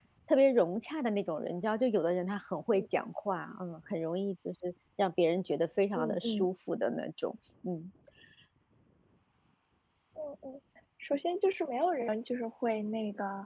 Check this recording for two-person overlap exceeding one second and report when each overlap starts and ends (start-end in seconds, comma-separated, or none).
none